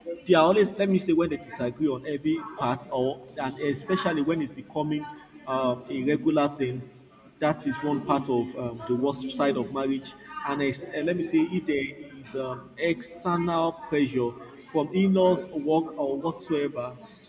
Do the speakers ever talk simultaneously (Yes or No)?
No